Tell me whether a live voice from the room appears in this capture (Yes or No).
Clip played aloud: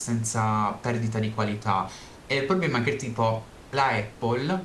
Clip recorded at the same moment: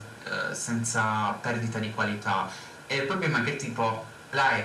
No